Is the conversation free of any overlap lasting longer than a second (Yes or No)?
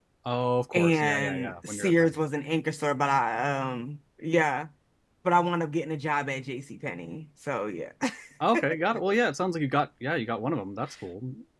No